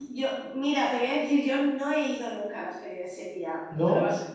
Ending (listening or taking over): listening